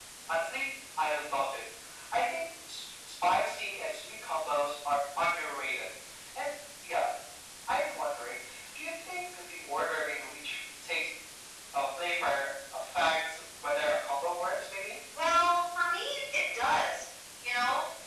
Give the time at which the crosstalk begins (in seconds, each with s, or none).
none